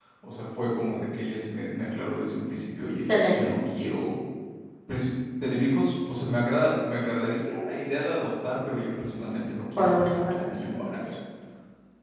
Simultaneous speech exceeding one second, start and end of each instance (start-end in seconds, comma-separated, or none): 9.8-11.2